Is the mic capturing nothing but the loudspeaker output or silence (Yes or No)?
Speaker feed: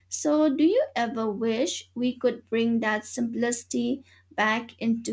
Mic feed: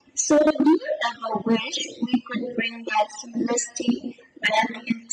Yes